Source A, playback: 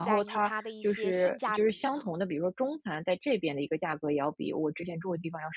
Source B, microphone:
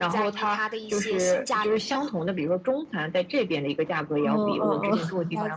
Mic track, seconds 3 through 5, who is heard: both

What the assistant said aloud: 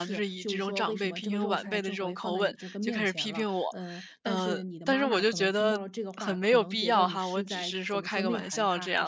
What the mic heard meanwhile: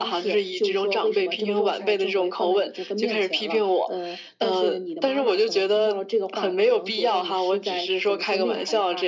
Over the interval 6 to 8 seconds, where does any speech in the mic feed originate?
echo only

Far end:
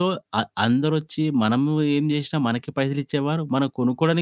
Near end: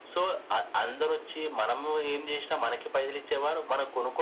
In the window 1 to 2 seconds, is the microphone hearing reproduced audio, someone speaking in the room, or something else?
echo only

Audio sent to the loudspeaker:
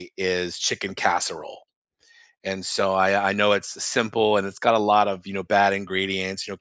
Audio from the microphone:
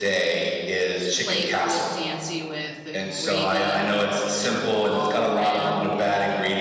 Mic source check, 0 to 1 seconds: echo only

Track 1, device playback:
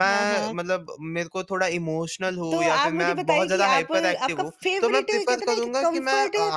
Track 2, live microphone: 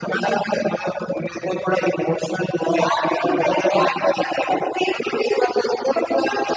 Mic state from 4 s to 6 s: echo only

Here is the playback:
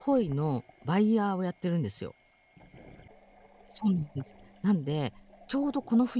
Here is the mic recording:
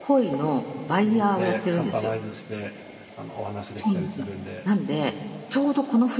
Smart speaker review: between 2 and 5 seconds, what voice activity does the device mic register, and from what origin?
both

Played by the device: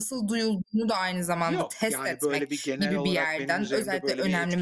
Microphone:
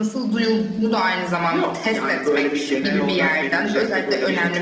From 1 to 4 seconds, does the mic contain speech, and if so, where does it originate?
echo only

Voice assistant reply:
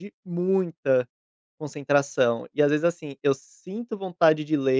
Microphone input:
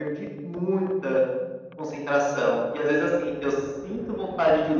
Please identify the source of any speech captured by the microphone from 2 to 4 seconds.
echo only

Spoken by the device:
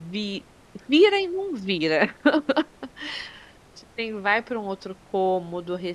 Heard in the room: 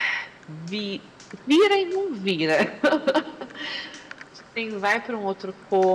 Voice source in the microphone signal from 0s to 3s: echo only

